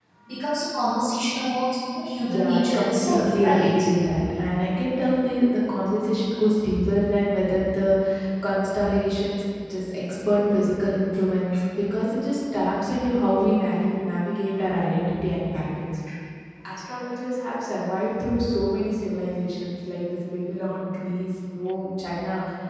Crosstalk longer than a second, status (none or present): present